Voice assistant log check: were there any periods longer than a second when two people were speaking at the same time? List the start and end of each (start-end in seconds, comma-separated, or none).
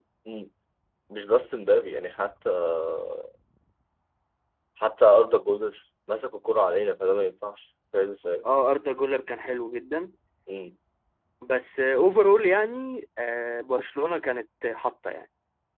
none